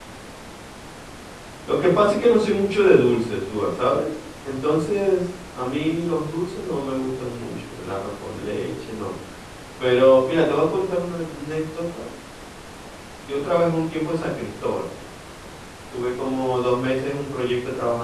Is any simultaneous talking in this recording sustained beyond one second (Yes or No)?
No